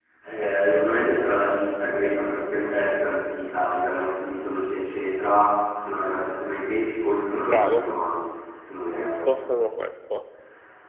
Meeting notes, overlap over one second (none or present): none